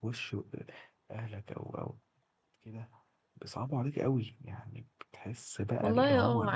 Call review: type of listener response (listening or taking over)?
taking over